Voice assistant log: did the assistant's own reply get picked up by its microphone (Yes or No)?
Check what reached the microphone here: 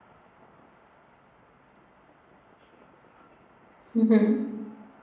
No